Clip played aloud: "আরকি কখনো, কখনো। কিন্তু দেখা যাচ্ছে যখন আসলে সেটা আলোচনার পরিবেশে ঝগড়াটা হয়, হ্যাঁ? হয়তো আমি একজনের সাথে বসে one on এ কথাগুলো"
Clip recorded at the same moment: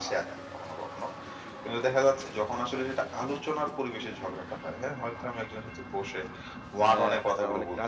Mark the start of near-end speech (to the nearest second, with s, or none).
7 s